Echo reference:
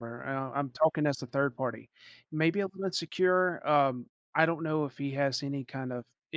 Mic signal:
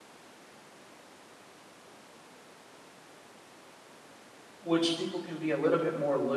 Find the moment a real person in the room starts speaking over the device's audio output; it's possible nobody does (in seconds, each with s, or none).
4.6 s